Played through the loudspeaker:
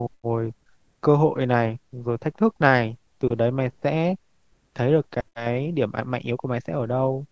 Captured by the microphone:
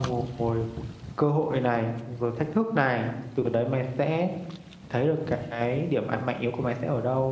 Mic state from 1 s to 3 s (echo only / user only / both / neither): echo only